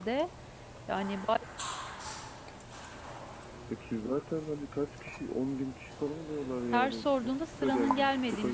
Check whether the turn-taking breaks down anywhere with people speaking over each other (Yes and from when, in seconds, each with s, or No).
Yes, from 6.7 s